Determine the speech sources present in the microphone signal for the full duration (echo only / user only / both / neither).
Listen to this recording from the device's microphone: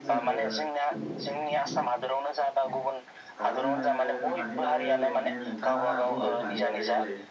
both